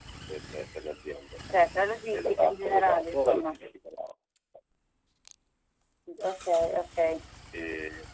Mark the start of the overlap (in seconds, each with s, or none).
2.1 s